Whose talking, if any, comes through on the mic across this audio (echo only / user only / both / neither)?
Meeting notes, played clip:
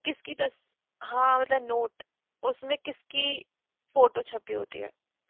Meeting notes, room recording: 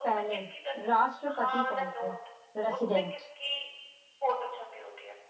both